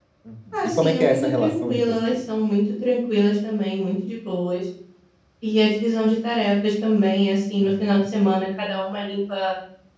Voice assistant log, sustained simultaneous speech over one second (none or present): present